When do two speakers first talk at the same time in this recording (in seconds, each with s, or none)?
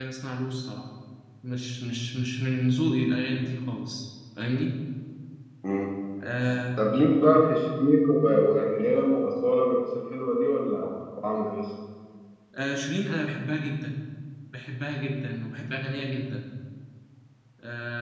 none